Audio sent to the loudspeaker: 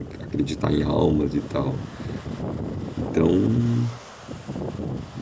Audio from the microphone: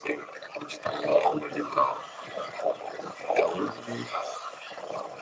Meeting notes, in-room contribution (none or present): none